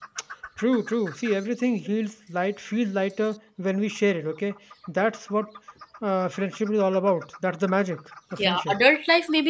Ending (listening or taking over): taking over